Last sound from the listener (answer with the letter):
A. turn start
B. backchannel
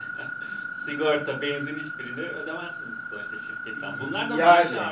B